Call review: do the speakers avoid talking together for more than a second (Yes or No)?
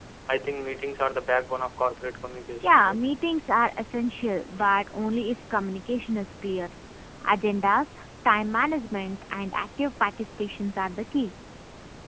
Yes